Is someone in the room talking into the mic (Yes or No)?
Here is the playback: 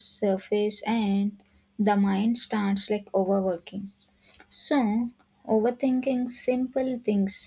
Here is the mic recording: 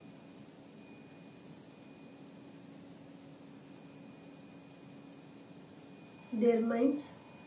Yes